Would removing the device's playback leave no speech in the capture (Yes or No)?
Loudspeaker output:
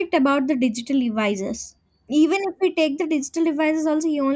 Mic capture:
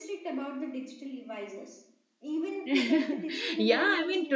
No